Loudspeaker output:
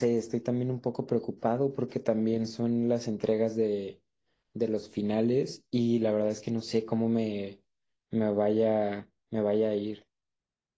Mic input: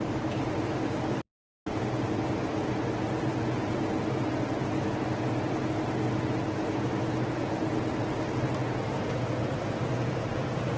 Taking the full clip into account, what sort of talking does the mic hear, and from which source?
neither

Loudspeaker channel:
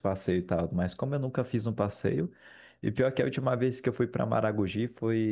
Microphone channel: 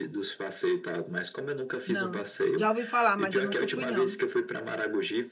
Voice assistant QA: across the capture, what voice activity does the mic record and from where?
both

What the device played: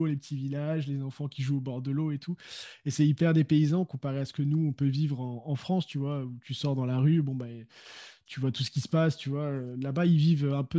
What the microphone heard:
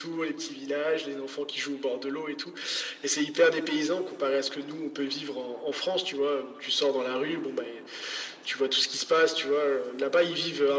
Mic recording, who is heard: echo only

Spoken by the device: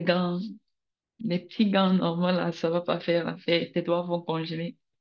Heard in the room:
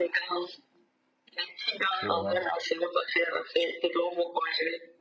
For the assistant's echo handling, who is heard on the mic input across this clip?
both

